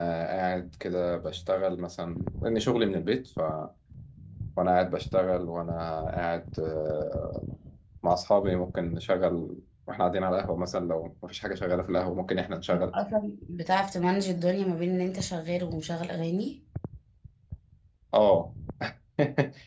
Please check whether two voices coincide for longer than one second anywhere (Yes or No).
No